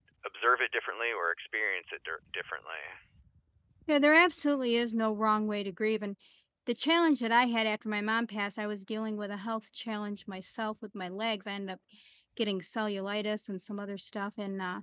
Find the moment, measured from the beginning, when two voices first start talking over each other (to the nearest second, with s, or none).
none